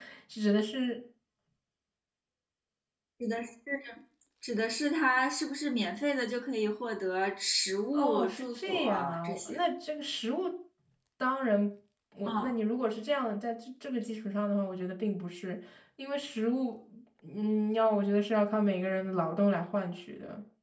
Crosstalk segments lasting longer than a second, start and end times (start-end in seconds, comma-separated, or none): 7.9-9.6